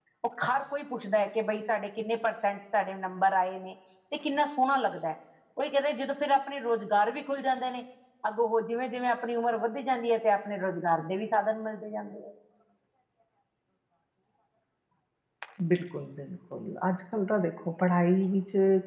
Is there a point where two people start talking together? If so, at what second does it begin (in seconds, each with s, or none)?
none